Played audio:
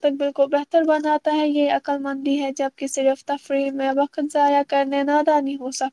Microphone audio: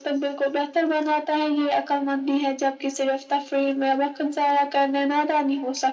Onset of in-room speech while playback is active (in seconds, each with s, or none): none